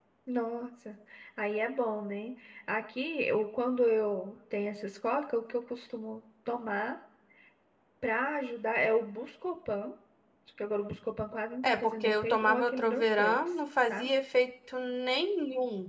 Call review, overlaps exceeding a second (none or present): present